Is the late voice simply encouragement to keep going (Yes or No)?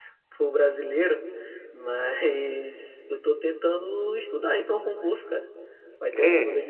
Yes